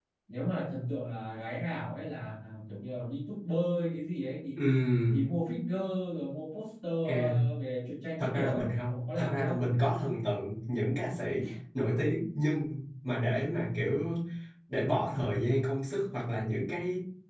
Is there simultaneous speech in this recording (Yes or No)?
Yes